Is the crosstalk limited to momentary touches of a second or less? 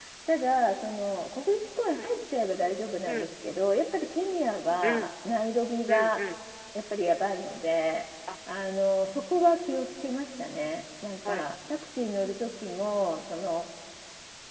Yes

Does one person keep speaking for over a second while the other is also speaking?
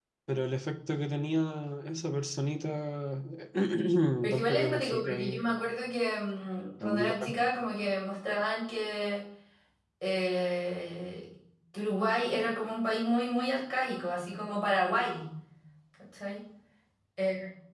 Yes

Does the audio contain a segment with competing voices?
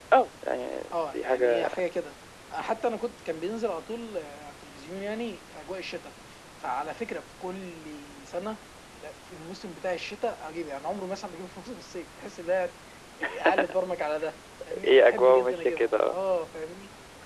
Yes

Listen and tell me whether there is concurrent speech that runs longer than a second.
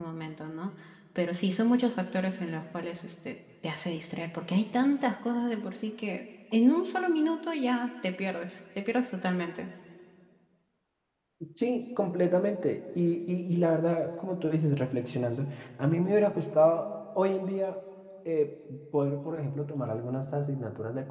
No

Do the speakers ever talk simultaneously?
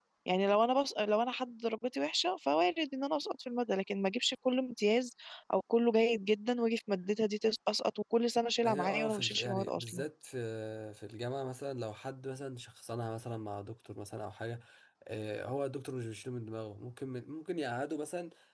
Yes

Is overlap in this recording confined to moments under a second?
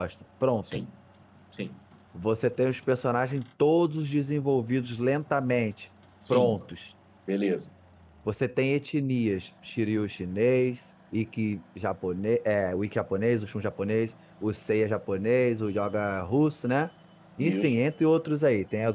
Yes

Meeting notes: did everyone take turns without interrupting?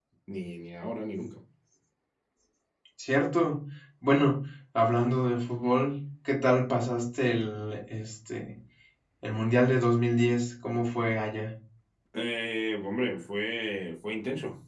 Yes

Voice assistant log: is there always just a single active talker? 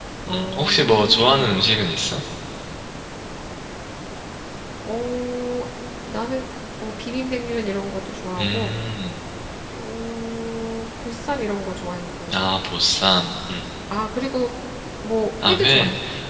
No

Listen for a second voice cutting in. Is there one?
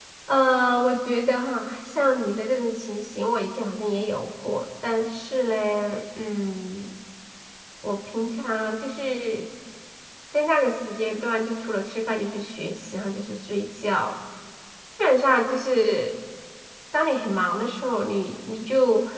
No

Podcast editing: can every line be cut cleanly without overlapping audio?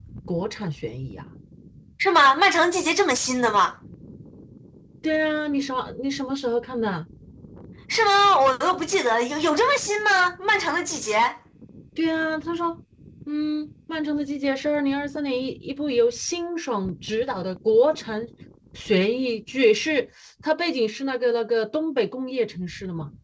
Yes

